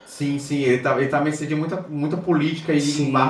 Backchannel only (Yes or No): No